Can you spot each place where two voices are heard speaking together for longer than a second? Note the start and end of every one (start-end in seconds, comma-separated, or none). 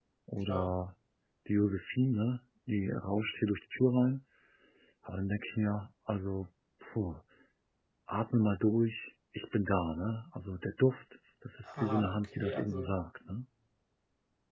11.7-12.9